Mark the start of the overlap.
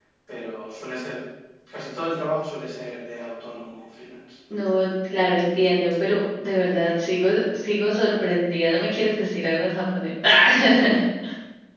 none

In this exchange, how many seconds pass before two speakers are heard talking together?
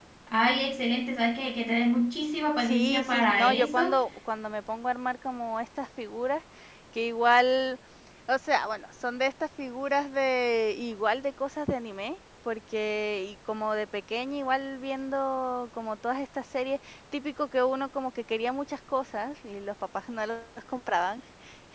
2.6 s

